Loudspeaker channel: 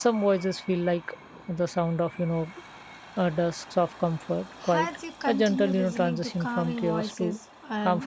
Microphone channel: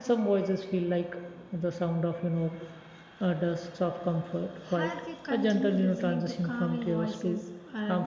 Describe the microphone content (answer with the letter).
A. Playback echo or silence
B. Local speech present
A